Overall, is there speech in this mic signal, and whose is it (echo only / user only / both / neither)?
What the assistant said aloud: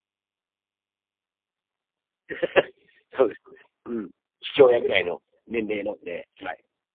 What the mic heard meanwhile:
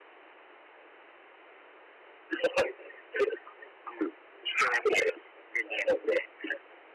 echo only